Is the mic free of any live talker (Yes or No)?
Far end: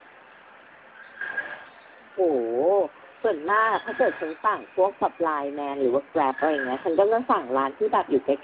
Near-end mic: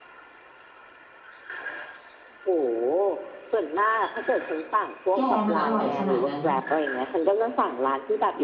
No